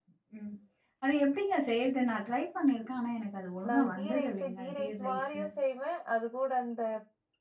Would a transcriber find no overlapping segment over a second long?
No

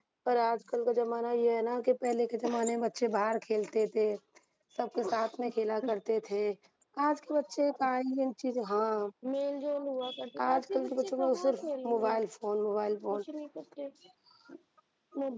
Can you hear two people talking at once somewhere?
Yes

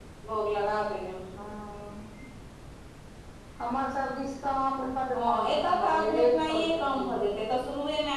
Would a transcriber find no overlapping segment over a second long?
No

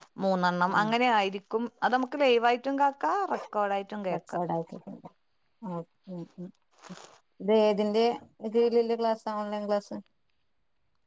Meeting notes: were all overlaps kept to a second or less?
Yes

